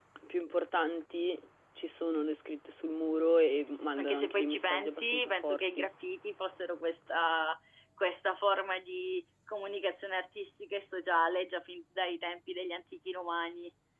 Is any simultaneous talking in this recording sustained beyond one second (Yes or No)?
Yes